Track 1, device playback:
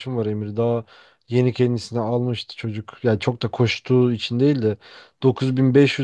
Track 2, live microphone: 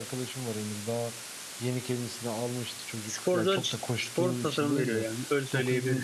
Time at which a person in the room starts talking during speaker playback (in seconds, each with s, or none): 3.0 s